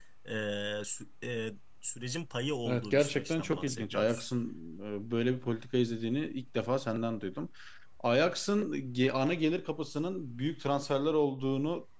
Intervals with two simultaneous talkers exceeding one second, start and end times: 2.6-4.2

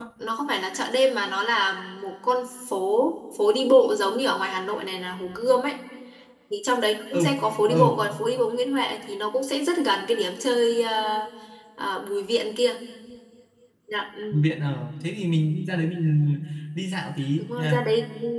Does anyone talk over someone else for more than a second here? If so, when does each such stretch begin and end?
none

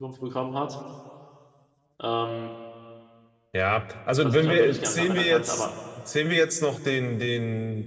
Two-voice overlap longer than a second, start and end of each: 4.2-5.7

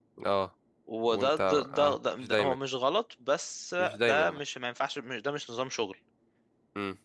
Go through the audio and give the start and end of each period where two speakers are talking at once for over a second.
1.1-2.5

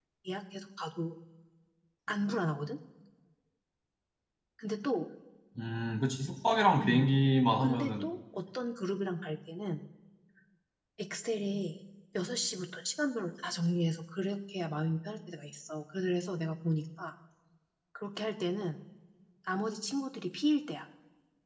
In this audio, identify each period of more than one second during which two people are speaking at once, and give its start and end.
none

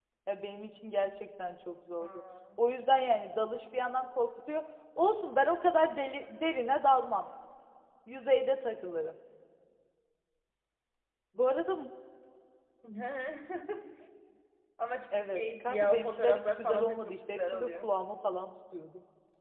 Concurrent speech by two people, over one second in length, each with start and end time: 15.1-17.9

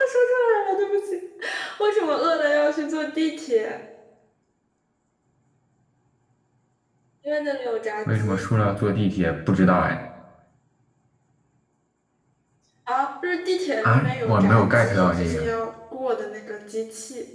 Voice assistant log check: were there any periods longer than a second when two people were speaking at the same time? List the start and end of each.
13.8-15.5

